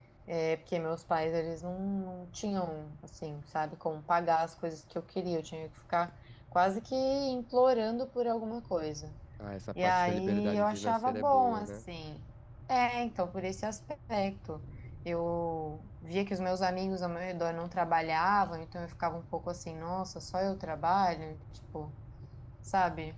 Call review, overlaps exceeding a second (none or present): present